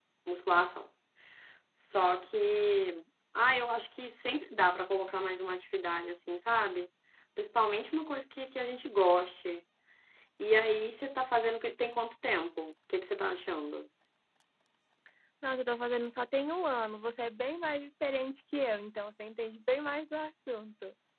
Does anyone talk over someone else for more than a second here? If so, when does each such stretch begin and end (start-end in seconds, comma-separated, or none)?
none